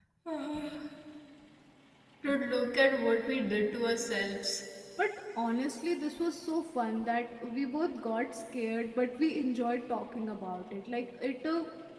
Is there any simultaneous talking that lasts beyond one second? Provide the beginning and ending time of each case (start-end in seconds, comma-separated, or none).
none